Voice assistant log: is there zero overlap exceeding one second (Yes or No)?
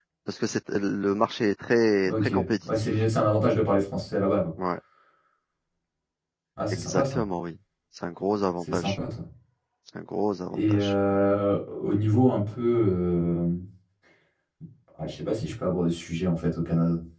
Yes